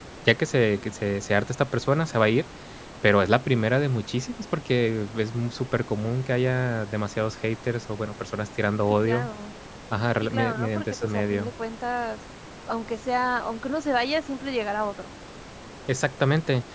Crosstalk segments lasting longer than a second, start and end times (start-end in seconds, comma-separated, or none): 10.2-11.5